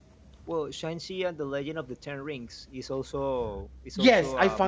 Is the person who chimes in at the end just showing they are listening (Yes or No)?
No